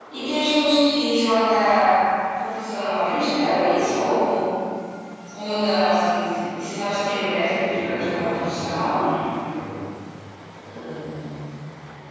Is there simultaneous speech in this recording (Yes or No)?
Yes